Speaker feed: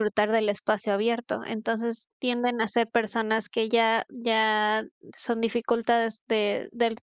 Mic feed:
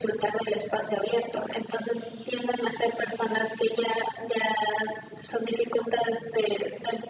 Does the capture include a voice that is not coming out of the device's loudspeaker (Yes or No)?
No